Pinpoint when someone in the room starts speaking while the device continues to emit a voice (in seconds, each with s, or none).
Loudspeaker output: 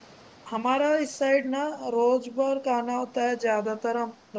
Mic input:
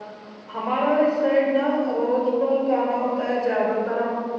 none